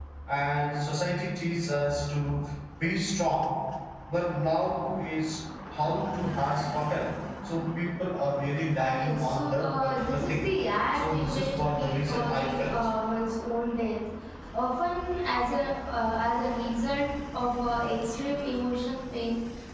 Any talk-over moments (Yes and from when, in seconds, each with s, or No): Yes, from 8.8 s